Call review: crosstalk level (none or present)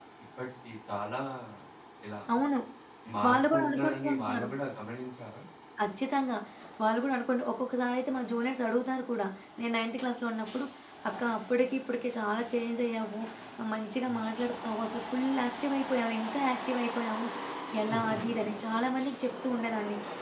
present